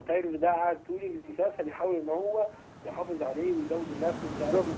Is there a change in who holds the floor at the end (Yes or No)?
Yes